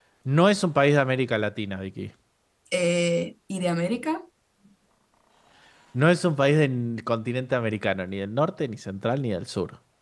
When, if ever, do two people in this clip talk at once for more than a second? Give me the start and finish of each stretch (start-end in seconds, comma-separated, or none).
none